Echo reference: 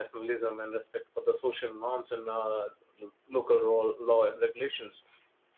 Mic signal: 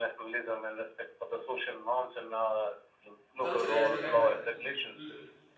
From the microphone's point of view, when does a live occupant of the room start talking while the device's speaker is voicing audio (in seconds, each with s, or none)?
3.4 s